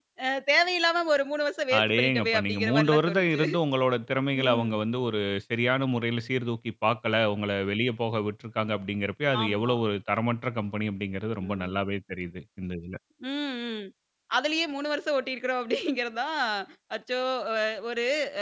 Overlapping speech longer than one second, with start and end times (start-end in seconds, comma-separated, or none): 1.8-3.4